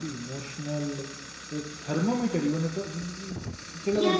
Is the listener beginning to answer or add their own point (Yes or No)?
Yes